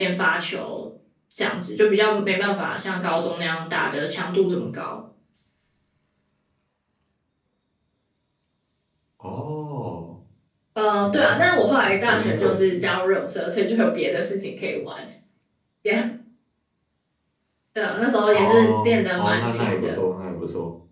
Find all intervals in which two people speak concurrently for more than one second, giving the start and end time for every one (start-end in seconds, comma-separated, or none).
11.0-12.9, 18.3-20.0